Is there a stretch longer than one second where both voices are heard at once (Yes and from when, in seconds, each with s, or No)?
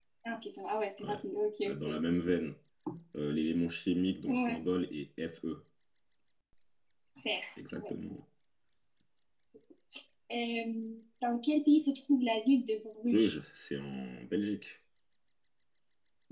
No